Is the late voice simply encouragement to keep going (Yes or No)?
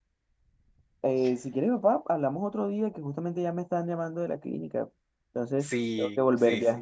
No